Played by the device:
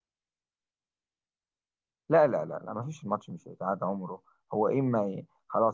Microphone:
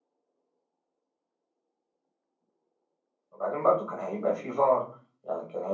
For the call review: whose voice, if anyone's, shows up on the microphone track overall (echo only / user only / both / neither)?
user only